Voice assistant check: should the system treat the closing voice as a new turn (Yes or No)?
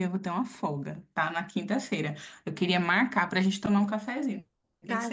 Yes